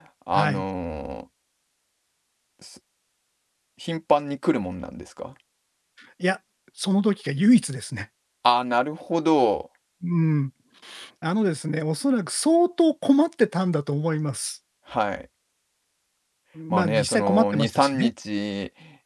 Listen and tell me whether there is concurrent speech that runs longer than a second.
Yes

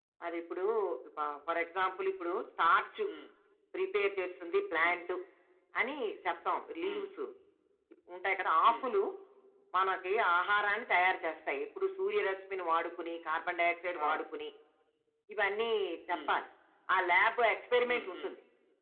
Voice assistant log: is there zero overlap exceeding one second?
Yes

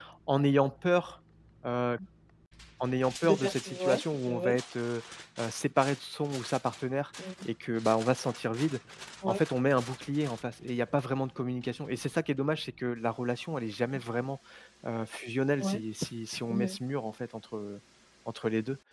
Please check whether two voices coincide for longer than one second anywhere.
Yes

